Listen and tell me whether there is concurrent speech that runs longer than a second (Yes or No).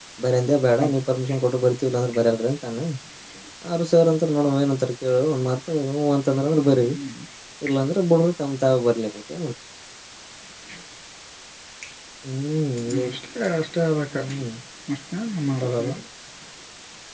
No